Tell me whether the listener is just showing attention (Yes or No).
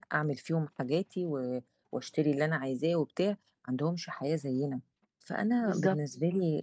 Yes